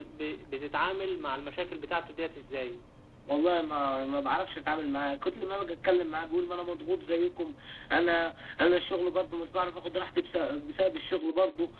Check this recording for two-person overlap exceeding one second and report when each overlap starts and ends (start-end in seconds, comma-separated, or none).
none